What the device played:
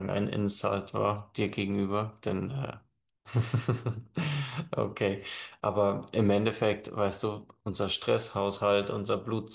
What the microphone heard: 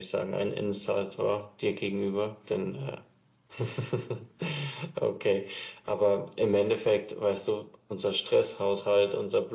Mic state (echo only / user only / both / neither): echo only